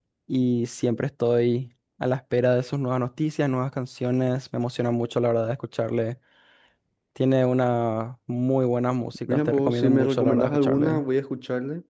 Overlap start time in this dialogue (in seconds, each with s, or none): 9.3 s